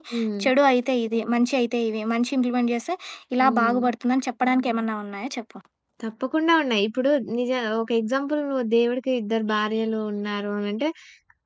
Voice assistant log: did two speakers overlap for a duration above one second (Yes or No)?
No